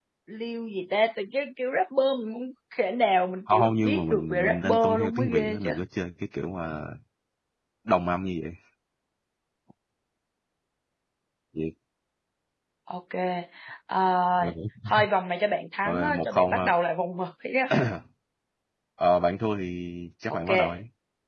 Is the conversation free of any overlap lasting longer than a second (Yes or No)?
No